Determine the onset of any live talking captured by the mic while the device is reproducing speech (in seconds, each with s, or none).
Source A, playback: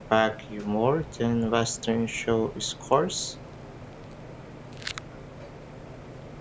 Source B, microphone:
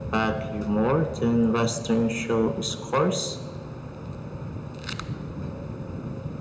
none